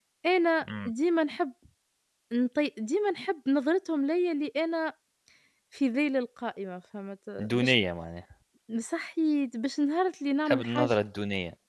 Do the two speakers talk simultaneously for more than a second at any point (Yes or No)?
No